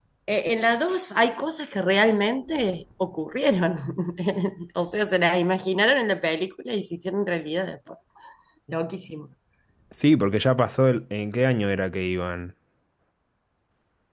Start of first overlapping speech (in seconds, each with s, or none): none